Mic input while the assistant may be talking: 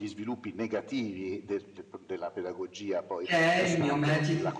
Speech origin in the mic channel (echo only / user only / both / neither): both